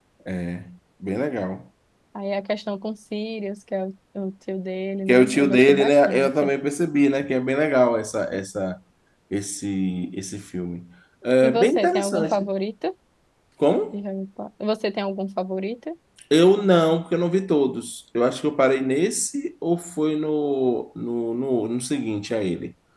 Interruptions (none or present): present